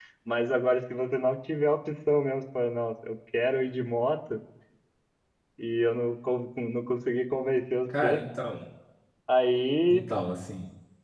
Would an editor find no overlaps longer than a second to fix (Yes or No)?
Yes